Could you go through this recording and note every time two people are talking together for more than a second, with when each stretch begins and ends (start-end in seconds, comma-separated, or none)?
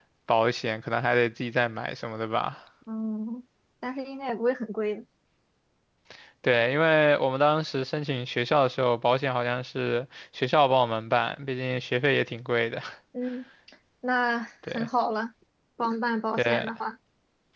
none